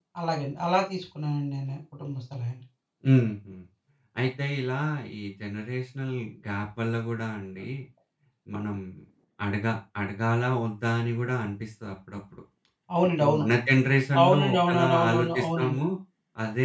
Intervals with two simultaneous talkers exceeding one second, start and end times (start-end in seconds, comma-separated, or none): 14.2-15.8